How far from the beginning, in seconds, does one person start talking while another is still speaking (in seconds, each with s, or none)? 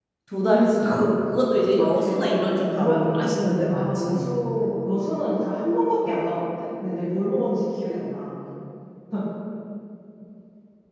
1.5 s